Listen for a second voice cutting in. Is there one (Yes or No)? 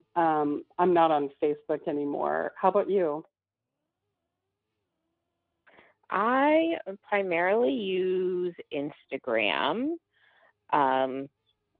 No